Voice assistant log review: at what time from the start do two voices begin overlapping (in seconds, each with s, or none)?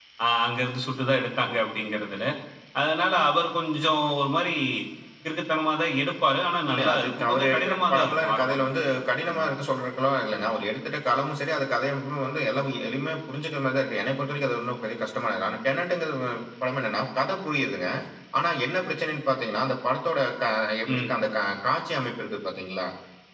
6.7 s